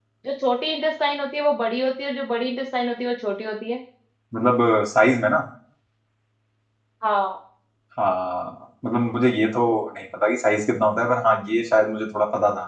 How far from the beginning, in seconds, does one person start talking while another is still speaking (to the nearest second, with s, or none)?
none